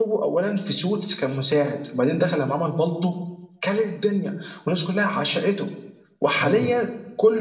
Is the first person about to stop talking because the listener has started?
No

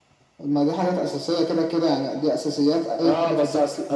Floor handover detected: Yes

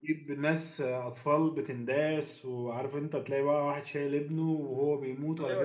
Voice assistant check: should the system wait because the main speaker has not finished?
No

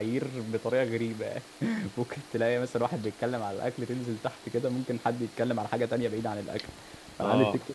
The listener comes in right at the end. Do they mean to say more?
No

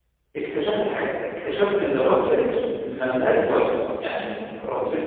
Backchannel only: No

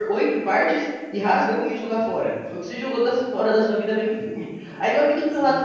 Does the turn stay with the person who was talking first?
Yes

